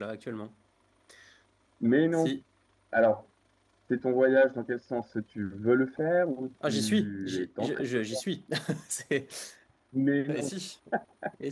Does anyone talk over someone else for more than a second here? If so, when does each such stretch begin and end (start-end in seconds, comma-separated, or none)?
6.7-8.2